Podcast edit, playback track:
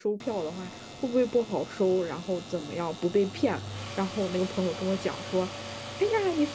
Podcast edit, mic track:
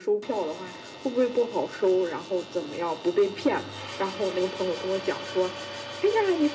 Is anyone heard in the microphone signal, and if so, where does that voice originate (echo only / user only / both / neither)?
echo only